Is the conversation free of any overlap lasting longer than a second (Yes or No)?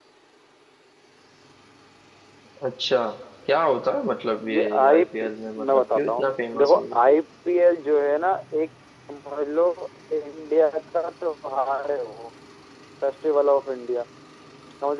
No